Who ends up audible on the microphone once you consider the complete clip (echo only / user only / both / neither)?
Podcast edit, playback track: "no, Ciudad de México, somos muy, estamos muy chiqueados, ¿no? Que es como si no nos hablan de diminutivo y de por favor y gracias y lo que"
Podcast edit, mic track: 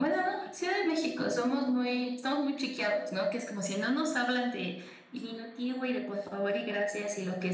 echo only